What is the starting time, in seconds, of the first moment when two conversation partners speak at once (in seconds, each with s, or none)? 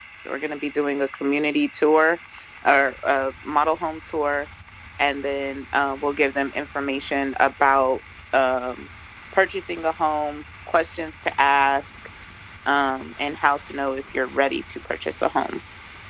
none